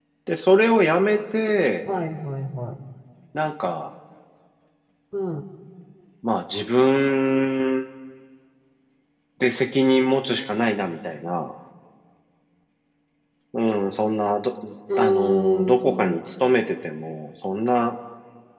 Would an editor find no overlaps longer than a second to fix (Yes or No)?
No